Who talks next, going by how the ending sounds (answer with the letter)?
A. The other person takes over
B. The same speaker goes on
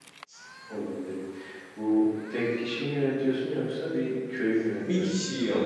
A